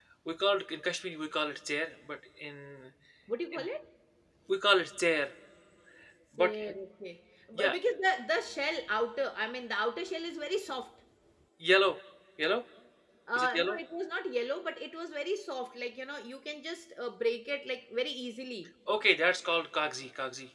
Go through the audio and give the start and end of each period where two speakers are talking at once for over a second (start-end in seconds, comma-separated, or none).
none